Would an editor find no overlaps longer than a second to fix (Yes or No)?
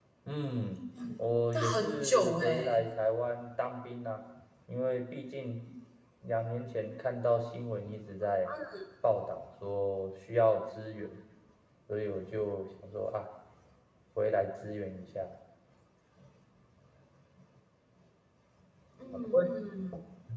No